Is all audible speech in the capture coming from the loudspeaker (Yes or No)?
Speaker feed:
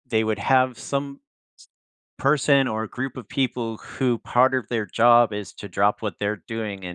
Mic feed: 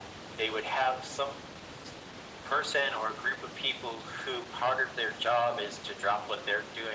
Yes